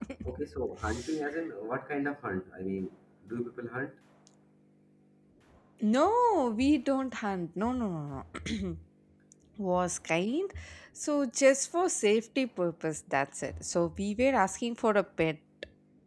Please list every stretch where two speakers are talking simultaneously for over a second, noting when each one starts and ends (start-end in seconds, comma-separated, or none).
none